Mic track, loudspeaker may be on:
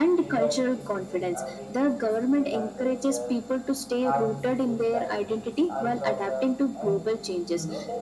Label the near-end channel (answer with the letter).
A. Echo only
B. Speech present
B